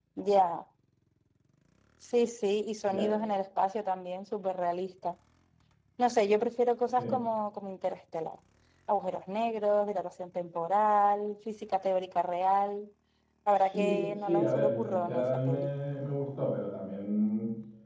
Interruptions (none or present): present